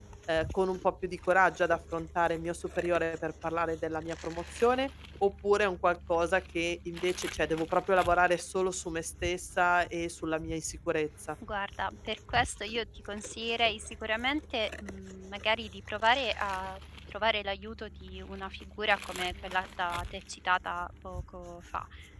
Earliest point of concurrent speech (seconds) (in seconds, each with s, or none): none